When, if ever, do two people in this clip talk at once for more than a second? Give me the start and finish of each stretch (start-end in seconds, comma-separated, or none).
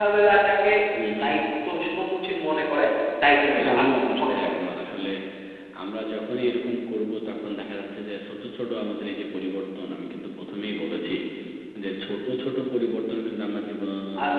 3.4-4.6